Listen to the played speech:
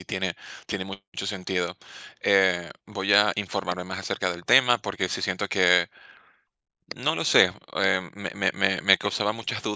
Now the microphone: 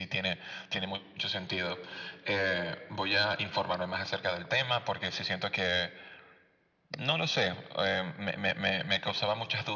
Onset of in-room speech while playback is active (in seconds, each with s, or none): none